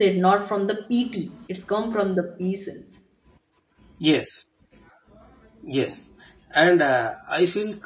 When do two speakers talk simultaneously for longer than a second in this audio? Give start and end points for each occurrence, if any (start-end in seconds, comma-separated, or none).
none